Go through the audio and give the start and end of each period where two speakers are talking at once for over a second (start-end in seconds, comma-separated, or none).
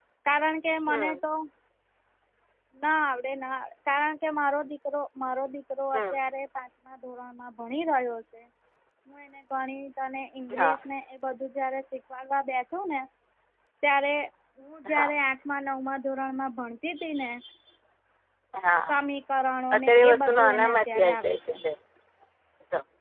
19.7-21.5